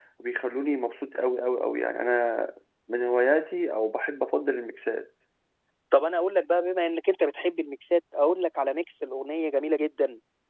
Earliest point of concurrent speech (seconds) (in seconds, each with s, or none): none